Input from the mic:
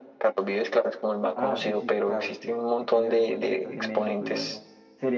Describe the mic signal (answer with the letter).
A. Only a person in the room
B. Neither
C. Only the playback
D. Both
D